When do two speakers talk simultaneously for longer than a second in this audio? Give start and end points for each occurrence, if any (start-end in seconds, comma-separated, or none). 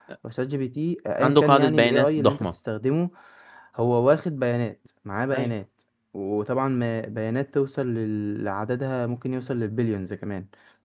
1.2-2.5